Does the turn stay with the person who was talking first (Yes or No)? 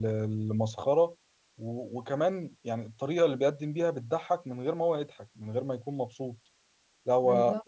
Yes